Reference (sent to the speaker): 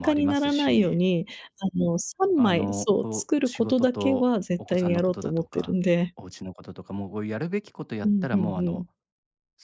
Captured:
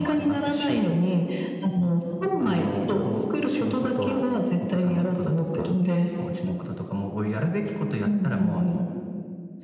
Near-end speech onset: none

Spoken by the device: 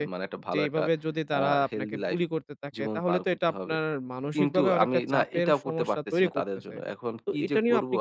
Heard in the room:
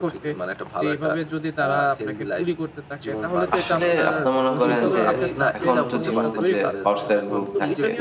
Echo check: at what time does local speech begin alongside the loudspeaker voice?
3.3 s

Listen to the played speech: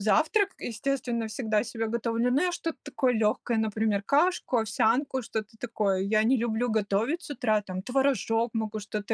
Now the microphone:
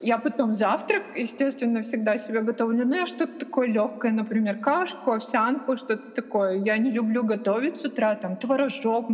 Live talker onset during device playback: none

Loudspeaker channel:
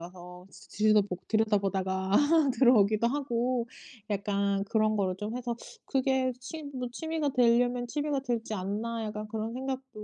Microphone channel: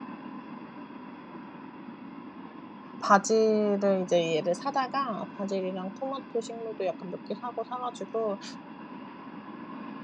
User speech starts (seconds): 3.0 s

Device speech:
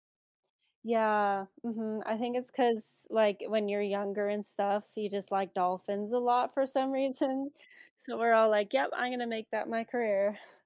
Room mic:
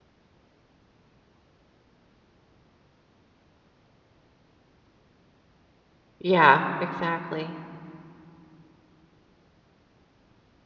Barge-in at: 6.2 s

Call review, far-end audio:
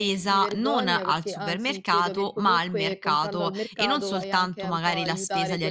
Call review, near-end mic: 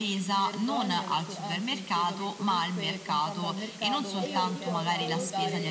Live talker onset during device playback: 4.2 s

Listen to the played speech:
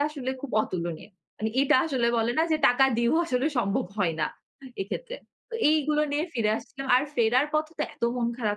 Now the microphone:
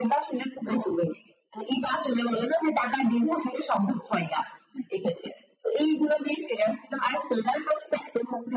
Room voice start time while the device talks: none

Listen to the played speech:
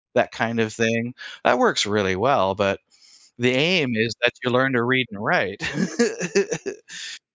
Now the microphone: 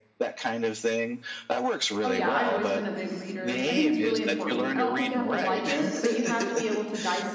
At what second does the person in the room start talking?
2.0 s

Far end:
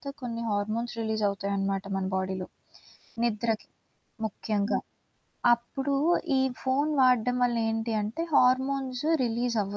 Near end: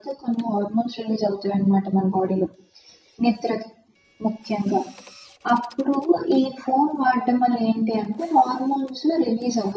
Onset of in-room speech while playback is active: none

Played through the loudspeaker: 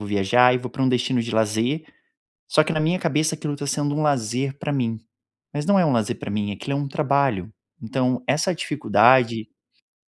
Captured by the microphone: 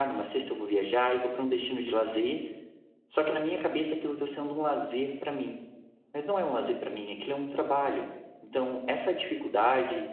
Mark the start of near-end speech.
none

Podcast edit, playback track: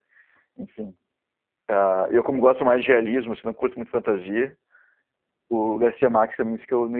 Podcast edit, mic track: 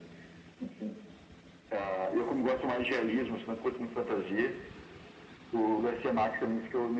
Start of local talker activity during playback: none

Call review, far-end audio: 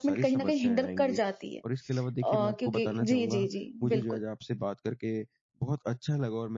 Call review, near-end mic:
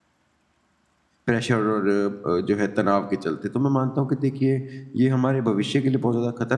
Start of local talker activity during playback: 1.2 s

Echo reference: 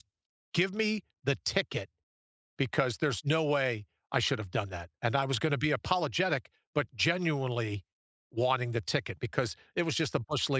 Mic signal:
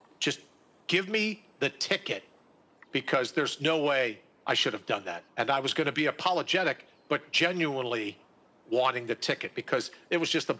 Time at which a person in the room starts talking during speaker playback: none

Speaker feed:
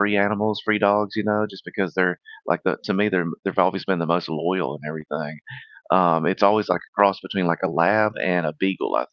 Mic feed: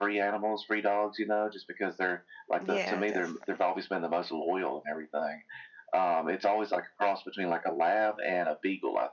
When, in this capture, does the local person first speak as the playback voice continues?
2.6 s

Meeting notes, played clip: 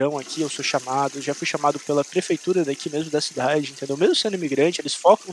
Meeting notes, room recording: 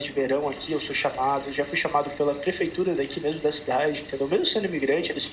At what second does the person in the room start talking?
none

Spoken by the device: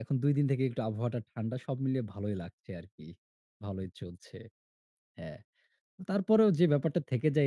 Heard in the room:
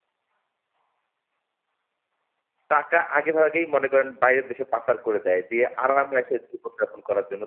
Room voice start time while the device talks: 2.7 s

